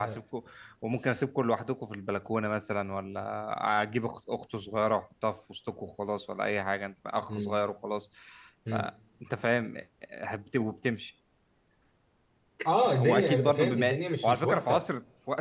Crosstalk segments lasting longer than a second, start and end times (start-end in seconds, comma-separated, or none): 12.8-14.8